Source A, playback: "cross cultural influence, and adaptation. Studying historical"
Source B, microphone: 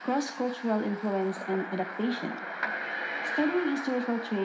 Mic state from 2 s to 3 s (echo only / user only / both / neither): echo only